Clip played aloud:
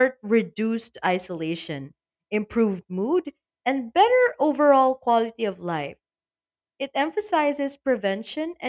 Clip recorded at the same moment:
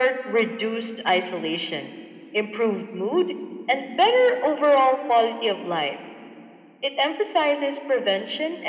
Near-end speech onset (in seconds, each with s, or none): none